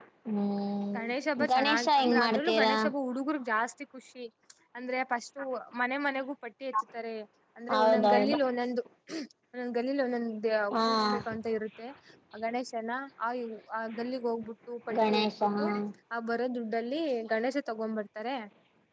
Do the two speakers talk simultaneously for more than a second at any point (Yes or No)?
Yes